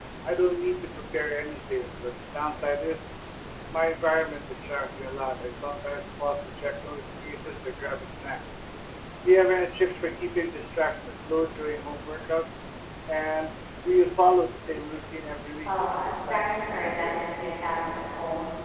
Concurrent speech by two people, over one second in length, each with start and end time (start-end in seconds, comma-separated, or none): 15.6-17.5